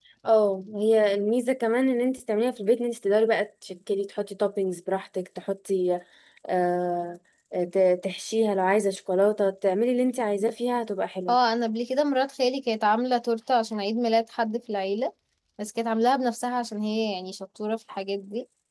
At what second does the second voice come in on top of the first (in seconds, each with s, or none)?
none